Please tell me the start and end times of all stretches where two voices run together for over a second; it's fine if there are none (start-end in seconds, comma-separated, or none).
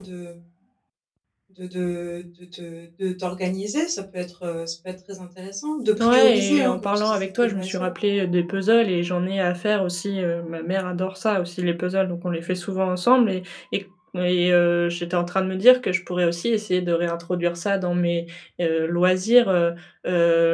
6.0-7.9